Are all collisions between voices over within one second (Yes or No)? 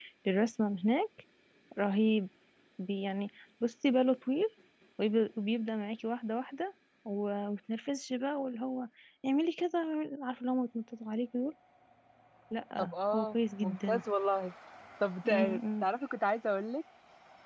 No